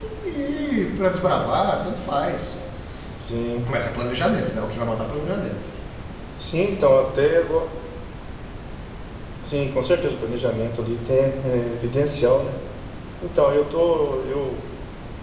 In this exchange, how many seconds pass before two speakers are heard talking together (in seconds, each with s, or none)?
none